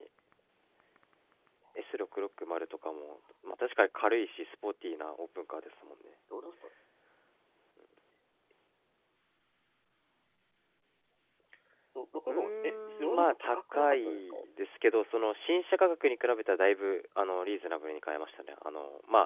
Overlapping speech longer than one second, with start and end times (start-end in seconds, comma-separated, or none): 12.3-14.3